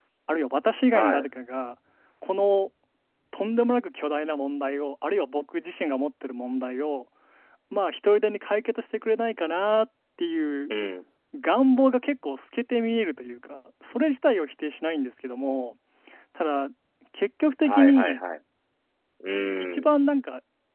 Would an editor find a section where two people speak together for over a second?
No

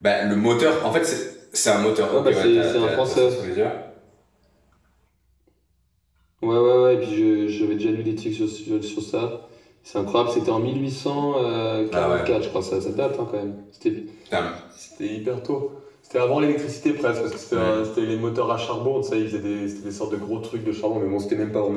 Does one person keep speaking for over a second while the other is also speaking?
Yes, from 2.1 s

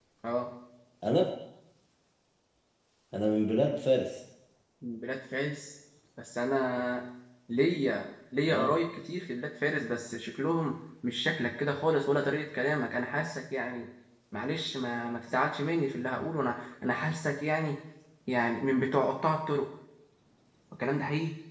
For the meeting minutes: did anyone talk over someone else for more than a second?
No

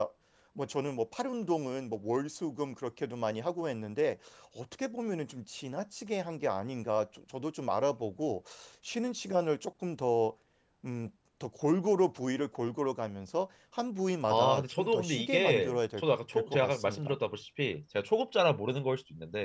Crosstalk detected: Yes, from 14.3 s

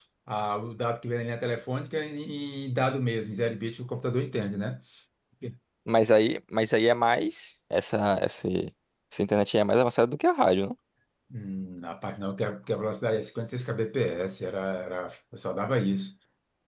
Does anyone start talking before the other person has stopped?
No

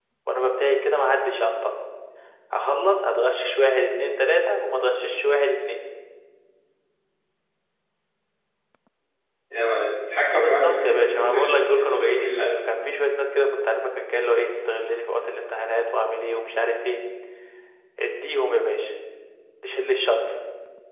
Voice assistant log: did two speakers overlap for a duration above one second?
Yes, from 10.3 s

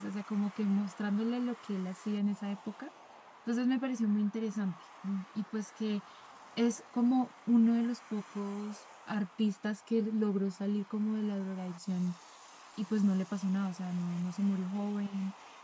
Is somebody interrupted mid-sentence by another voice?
No

